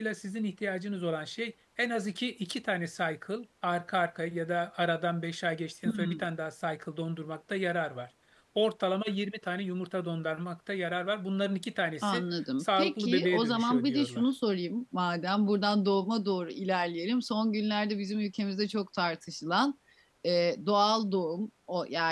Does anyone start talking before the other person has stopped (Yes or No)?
Yes